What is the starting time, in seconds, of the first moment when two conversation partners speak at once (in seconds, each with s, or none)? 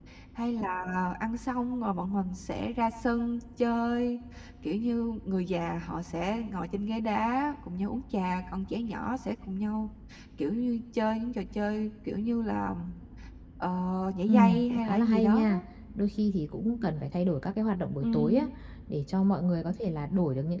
14.3 s